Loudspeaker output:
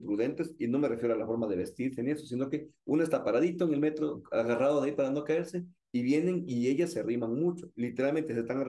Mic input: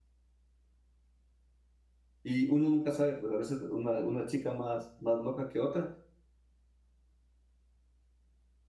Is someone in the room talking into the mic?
Yes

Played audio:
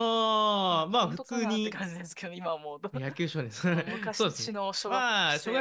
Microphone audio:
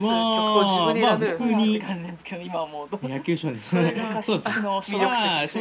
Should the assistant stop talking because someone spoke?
Yes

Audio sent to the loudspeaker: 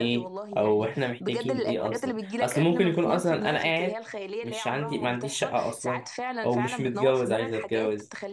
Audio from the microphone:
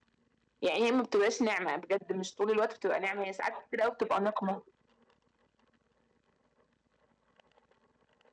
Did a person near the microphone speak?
Yes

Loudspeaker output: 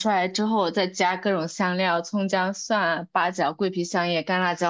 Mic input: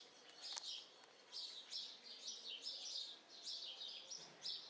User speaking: No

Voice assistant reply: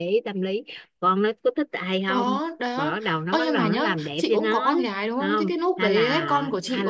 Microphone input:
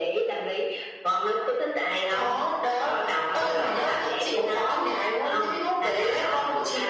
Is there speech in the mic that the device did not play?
No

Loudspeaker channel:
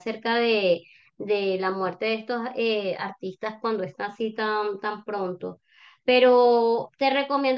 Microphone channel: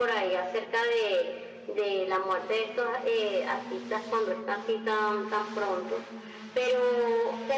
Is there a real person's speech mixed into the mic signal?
No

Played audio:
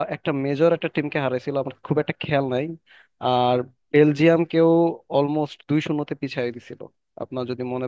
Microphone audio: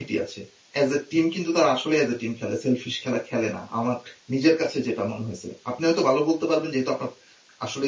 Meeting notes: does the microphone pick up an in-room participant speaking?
Yes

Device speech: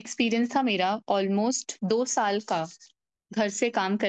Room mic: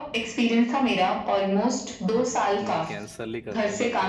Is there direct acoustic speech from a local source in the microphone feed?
Yes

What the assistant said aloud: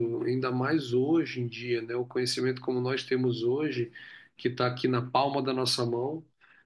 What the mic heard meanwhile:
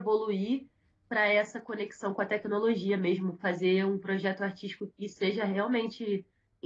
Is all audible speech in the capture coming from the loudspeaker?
No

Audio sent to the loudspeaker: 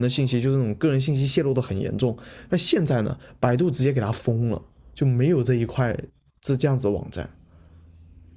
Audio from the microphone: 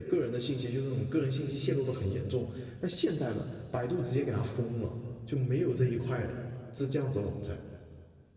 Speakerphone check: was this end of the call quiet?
Yes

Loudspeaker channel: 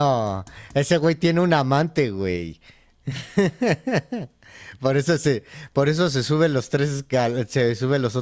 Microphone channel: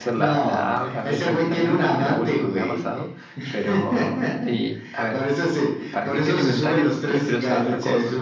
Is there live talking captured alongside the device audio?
Yes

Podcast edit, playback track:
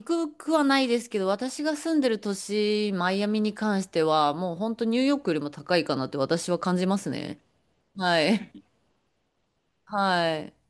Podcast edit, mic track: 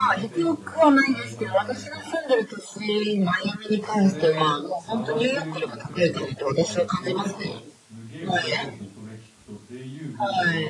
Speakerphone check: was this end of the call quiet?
No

